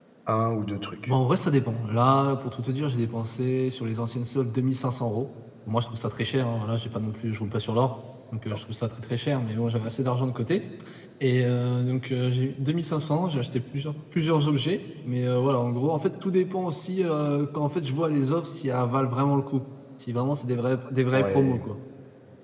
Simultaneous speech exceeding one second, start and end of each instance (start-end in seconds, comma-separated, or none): none